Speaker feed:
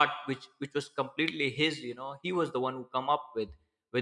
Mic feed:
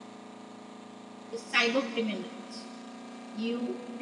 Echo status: none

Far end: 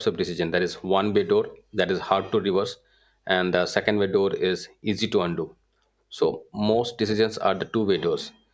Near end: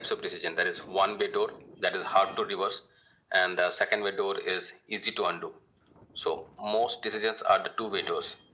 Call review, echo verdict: present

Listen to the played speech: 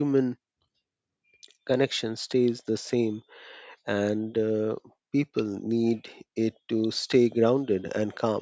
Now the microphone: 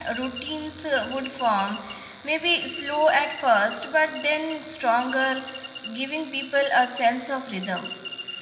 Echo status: none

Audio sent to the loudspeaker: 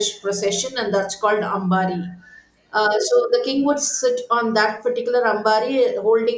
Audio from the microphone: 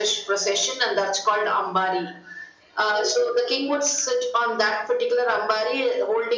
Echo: present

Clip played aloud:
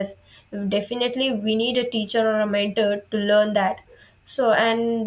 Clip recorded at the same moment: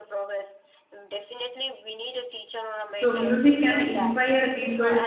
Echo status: present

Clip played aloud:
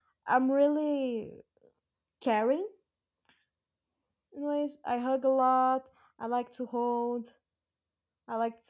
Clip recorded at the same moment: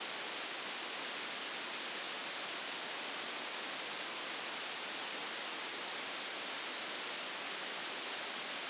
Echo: none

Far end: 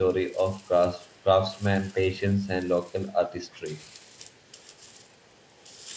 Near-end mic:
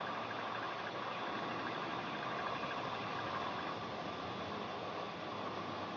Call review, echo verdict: none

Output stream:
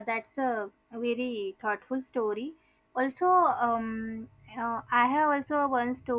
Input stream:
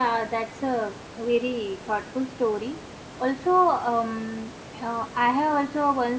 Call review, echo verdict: present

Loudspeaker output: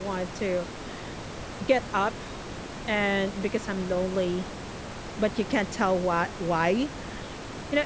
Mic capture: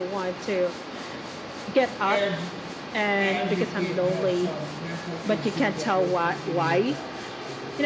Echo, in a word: present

